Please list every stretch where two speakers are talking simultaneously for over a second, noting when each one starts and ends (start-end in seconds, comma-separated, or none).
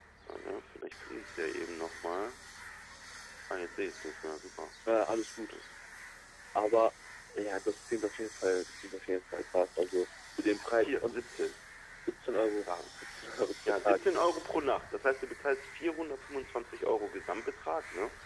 none